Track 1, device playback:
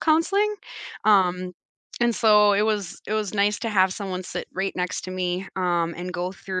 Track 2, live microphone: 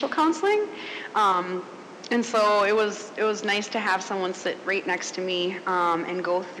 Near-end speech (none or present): none